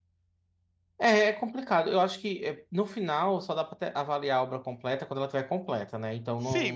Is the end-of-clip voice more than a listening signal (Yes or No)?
Yes